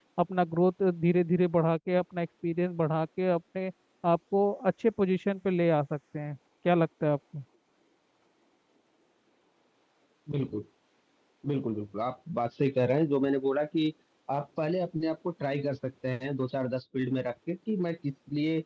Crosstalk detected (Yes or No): No